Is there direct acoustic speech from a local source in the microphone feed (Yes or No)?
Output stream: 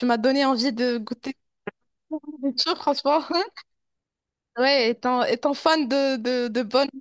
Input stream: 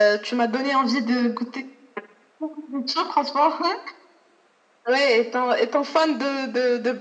No